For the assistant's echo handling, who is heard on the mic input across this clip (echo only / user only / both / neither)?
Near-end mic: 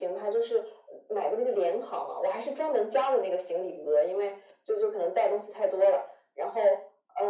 echo only